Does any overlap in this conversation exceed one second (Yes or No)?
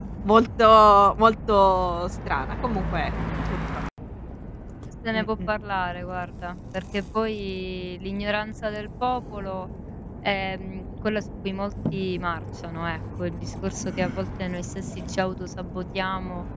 No